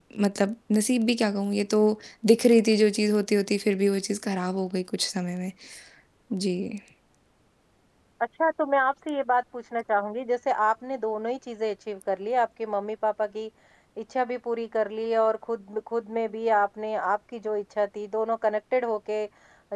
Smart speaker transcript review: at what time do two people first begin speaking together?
none

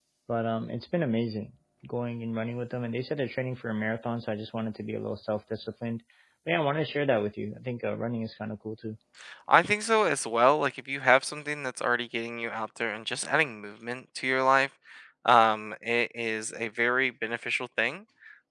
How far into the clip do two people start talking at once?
none

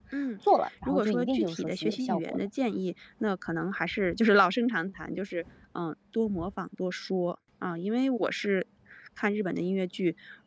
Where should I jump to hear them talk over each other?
1 s

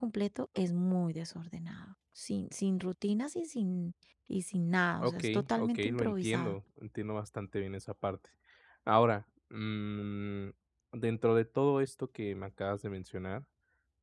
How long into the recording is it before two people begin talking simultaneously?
5 s

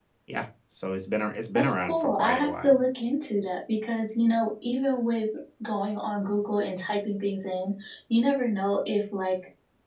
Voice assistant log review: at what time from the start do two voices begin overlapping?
2 s

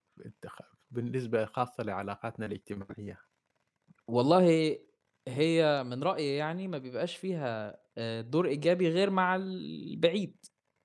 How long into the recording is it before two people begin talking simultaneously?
none

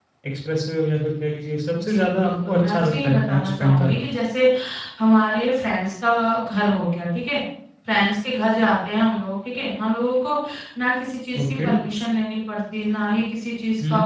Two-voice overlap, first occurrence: 2 s

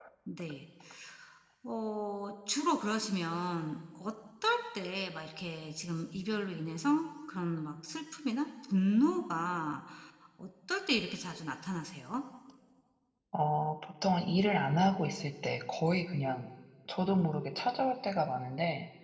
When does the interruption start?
none

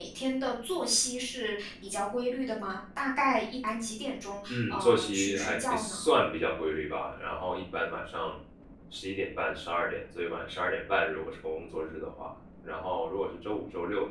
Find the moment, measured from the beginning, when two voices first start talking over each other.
4 s

